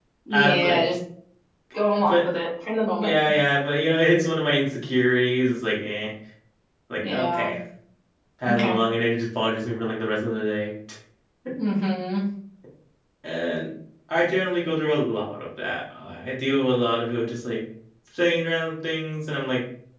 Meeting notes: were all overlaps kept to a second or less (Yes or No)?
Yes